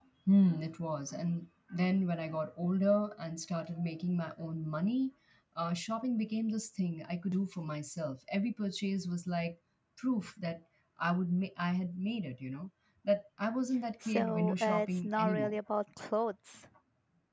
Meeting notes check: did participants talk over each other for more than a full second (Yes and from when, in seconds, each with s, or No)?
Yes, from 14.0 s